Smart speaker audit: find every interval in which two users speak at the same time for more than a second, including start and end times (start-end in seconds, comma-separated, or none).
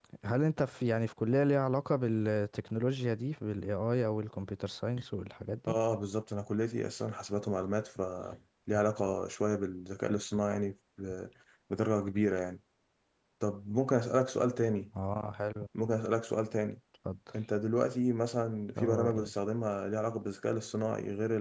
none